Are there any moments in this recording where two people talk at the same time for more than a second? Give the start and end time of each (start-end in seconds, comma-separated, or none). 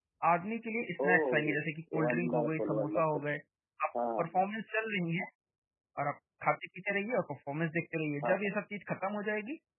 2.0-3.2